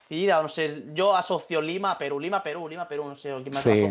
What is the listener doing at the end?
taking over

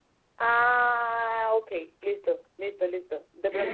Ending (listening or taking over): taking over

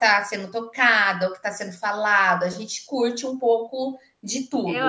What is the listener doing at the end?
taking over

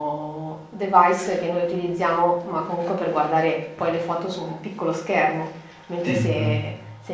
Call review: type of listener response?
listening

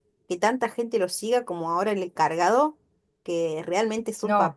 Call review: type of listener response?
listening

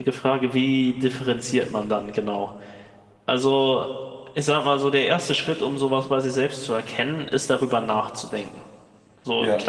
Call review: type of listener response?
listening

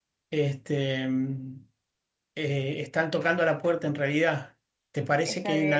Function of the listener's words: listening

